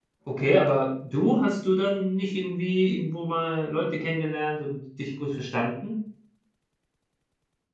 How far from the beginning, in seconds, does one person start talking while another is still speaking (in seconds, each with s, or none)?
none